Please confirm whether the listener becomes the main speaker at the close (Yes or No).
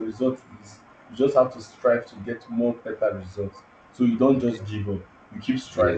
Yes